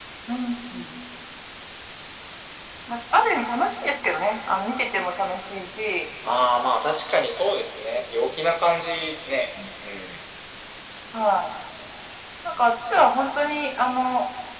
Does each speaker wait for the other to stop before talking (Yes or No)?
Yes